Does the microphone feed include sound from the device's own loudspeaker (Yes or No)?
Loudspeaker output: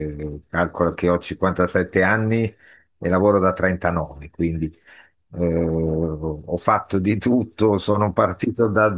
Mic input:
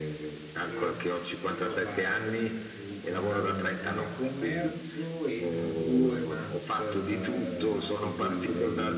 Yes